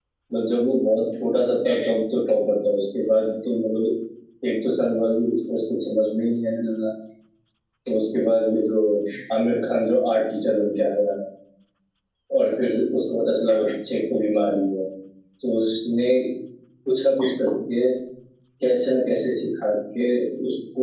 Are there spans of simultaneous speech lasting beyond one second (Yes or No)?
No